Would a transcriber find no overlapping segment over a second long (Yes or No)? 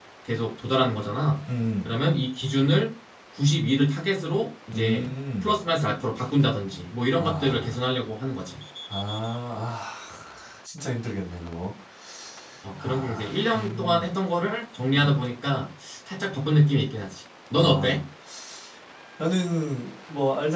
No